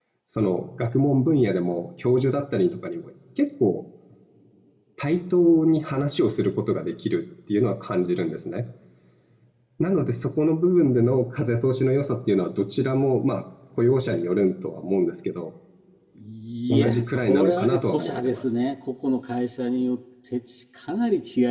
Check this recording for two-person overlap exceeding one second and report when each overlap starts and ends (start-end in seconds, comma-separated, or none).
16.7-18.6